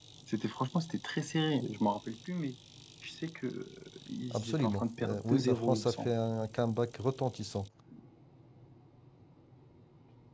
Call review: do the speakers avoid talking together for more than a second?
No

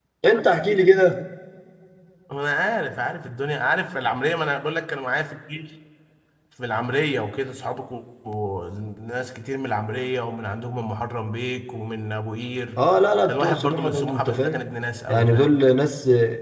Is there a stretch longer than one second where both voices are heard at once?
Yes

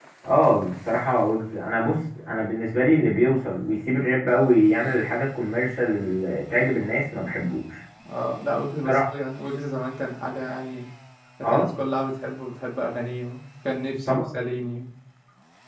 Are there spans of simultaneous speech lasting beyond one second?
No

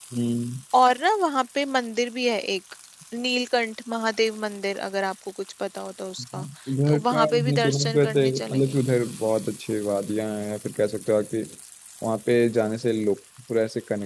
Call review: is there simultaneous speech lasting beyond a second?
Yes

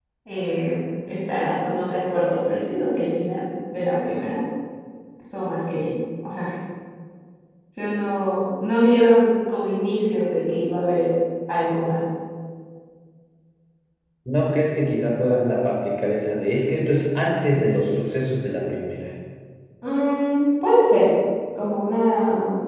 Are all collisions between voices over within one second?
Yes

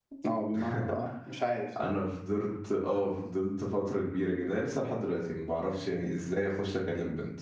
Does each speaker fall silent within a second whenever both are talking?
Yes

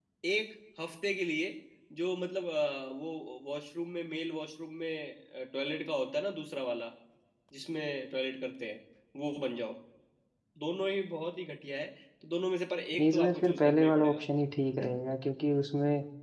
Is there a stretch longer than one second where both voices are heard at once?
Yes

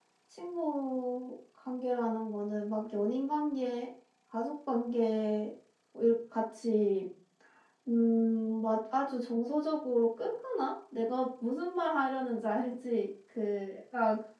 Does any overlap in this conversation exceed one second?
No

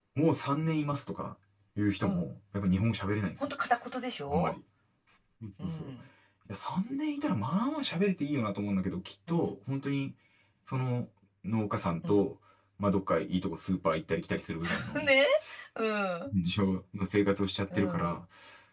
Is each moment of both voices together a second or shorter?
Yes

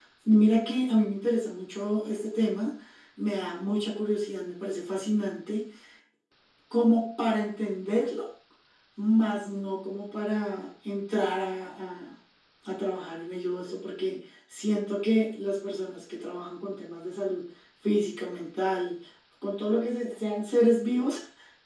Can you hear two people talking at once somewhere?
No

